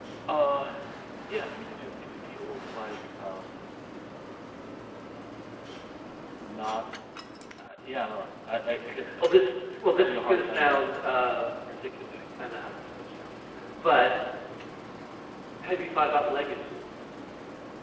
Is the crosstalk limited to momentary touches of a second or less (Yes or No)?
No